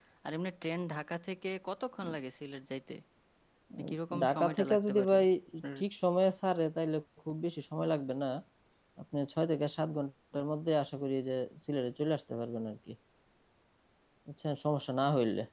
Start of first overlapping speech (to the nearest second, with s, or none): 4 s